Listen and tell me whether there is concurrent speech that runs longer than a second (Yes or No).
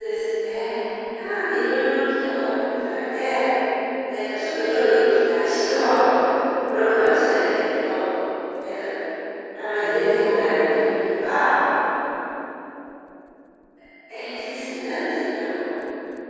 Yes